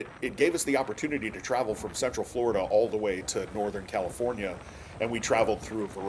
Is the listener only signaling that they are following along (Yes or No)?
Yes